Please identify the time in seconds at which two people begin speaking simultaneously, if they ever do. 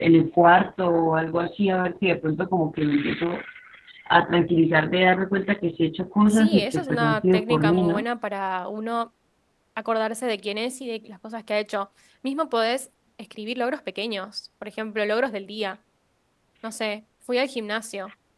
6 s

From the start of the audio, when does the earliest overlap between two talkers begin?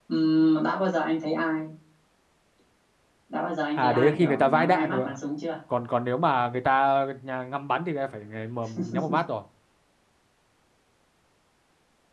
4 s

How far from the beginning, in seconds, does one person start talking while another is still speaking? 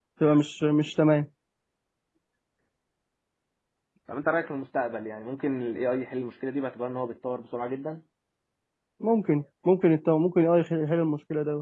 none

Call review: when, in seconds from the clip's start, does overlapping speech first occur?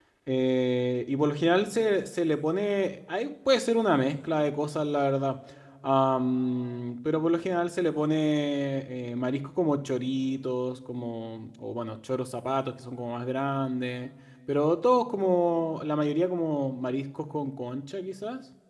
none

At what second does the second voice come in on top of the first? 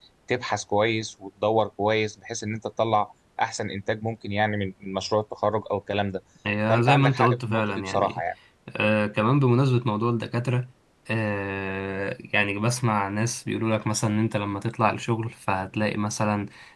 7 s

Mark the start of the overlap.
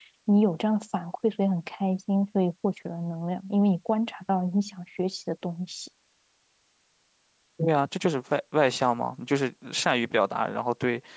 none

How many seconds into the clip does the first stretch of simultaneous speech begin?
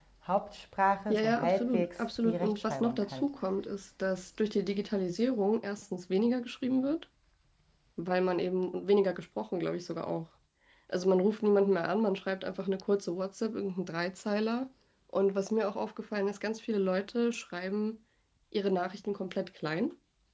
1 s

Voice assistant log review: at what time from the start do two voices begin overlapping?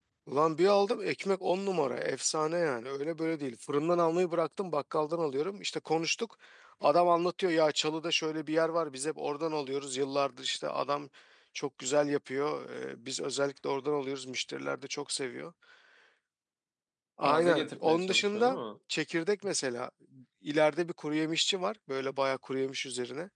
17 s

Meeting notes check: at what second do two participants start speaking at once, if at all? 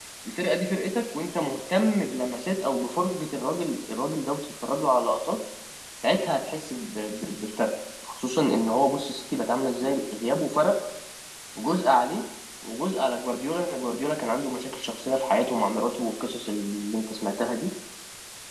none

